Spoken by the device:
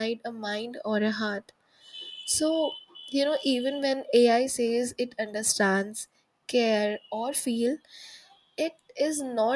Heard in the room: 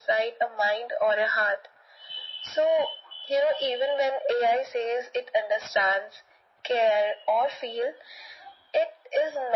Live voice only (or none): none